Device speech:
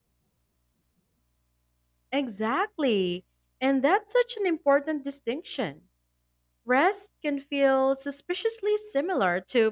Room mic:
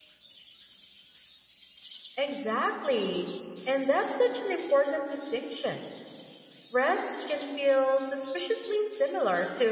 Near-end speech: none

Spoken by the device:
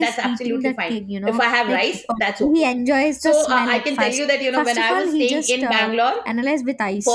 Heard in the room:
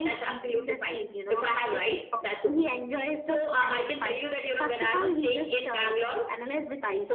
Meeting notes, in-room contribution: none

